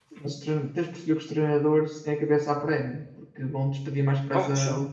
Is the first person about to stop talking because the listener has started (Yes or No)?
No